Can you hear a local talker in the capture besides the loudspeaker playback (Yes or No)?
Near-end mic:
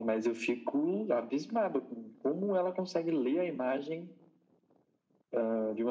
No